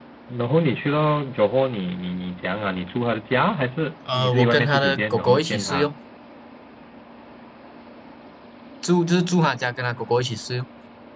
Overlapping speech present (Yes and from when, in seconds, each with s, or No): Yes, from 4.1 s